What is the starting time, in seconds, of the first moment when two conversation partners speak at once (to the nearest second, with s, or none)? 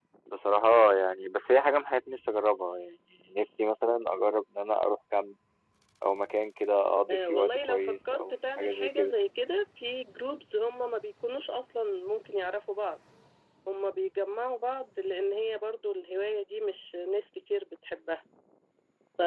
7 s